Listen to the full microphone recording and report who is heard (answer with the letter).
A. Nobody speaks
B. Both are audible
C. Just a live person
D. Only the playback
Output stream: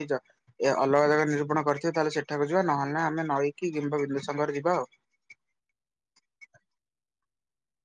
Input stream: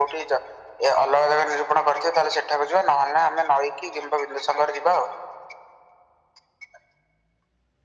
D